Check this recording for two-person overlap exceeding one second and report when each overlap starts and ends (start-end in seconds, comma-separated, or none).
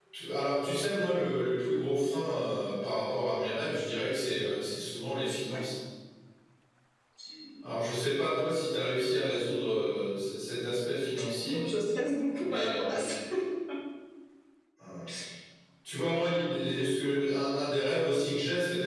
none